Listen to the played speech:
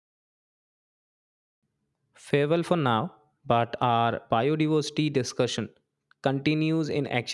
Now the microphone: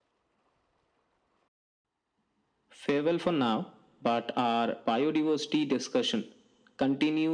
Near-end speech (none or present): none